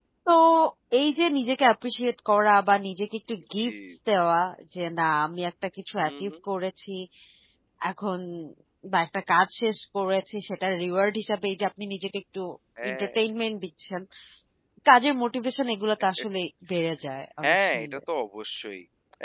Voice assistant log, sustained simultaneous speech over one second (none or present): none